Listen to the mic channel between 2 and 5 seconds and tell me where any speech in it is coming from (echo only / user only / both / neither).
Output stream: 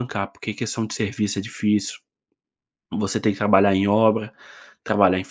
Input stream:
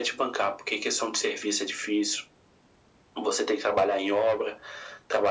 echo only